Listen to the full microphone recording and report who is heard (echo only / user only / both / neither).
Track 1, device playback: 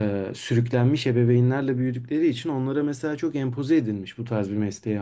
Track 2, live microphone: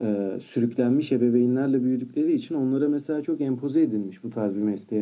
echo only